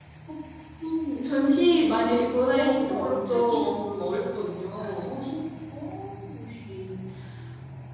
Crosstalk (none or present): present